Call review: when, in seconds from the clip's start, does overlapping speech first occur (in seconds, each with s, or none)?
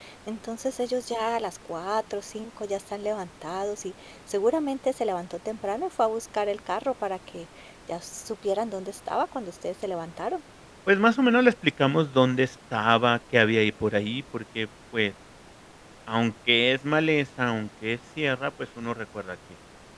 none